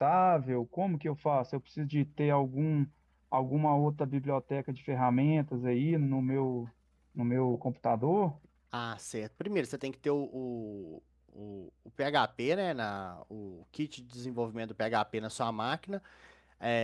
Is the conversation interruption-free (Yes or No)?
Yes